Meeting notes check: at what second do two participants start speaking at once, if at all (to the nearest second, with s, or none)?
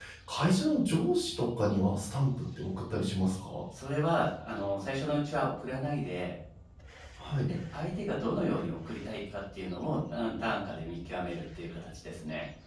none